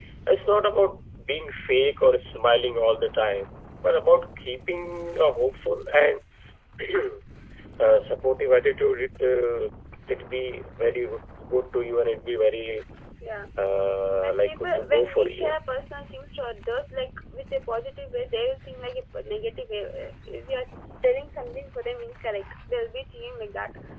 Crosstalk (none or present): present